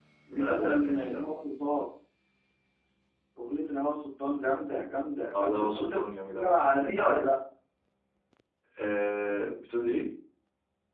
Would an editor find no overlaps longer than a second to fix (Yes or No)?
No